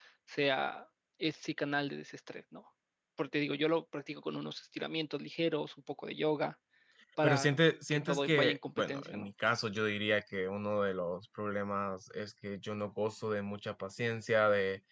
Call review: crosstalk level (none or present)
present